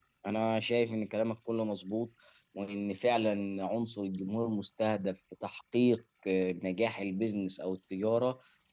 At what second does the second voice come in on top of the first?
none

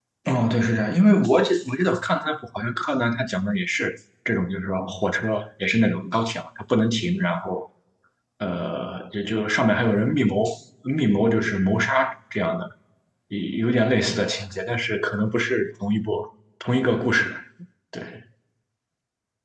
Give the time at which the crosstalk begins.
none

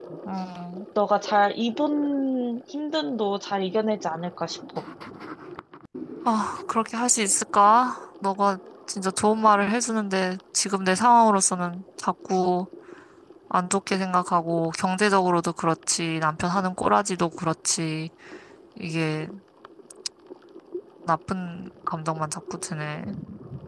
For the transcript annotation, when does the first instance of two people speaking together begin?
none

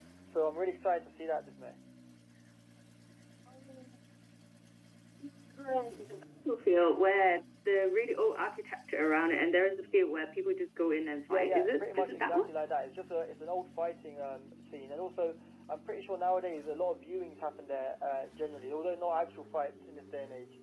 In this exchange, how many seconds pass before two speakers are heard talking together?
11 s

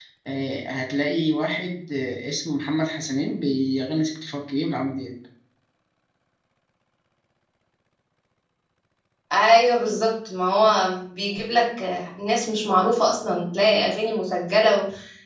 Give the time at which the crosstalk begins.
none

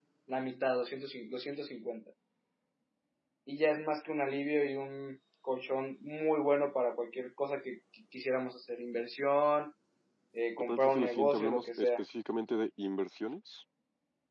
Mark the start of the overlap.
11 s

